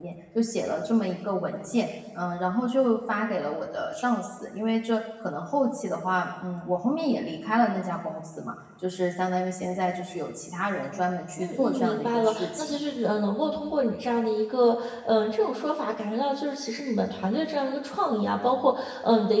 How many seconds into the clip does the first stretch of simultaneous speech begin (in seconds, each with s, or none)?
11.4 s